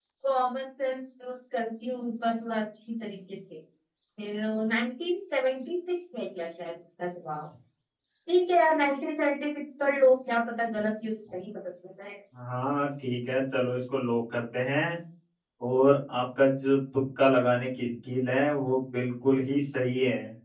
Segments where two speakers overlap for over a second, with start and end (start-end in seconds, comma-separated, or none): none